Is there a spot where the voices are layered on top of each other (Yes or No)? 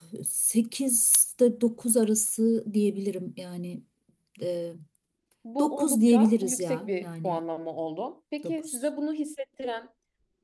Yes